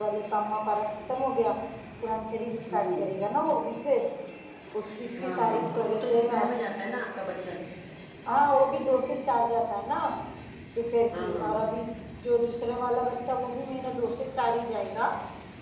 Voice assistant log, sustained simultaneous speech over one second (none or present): present